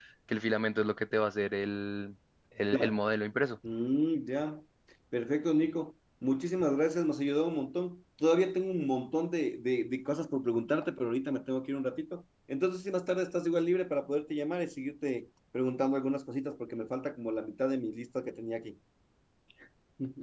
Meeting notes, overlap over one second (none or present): none